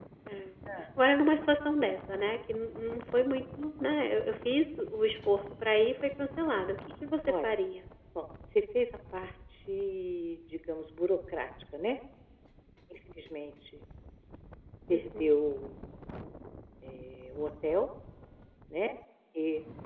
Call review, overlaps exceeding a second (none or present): none